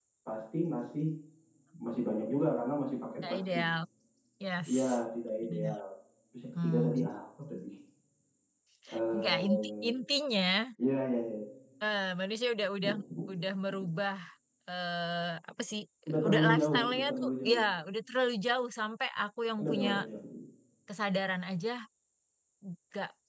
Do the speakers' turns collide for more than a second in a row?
Yes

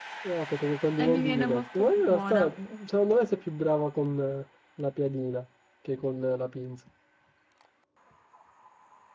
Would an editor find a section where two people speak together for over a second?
Yes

